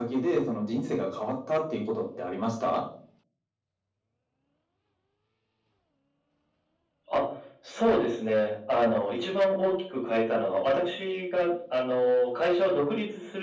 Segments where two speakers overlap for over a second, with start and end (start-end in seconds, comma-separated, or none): none